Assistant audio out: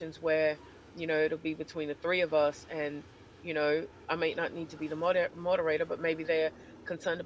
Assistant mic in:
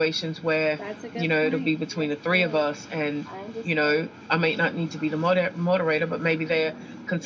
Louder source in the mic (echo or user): echo